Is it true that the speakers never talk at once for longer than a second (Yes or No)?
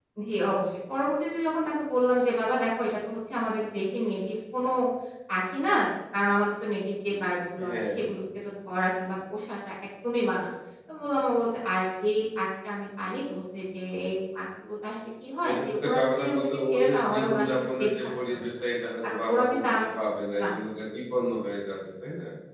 No